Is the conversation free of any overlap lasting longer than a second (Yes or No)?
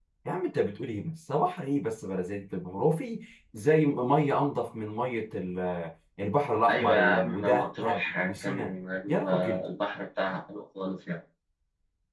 No